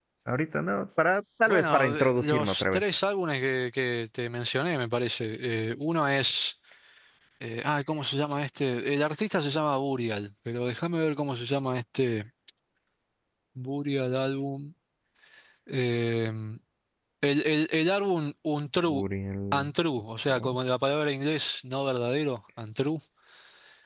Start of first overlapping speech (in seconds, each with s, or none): 1.5 s